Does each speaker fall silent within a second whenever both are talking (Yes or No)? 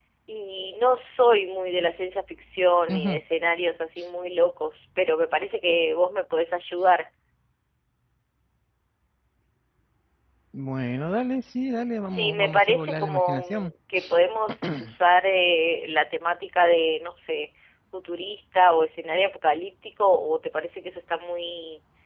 No